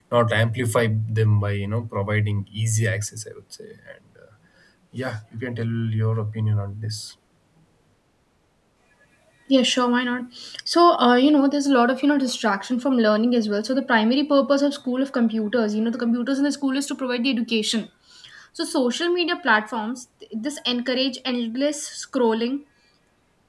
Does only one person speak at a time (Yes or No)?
Yes